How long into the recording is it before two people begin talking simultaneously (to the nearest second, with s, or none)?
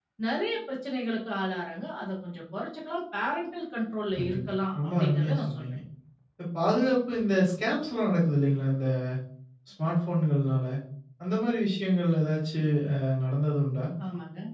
4 s